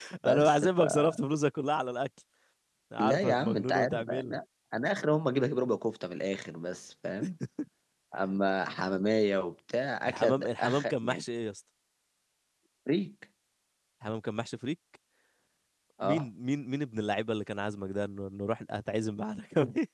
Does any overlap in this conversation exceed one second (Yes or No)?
Yes